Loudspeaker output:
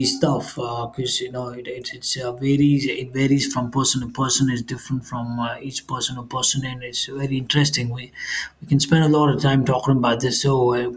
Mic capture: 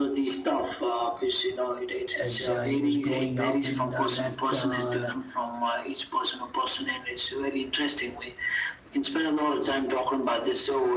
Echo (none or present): present